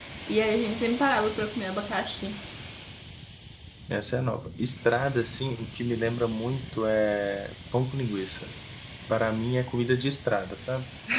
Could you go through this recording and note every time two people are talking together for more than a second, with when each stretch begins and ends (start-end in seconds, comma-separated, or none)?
none